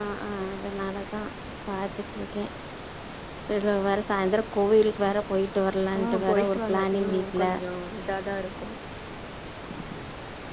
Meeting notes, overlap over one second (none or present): present